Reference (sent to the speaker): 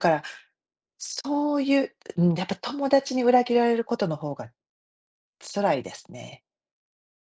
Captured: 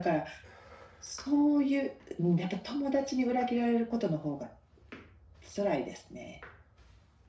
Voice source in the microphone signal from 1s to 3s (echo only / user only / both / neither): echo only